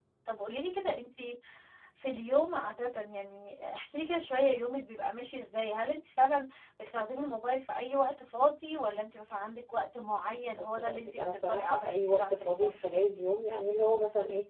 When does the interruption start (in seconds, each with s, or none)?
10.5 s